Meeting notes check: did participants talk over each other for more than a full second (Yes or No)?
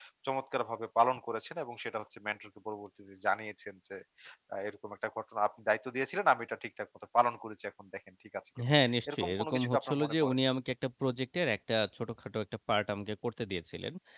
Yes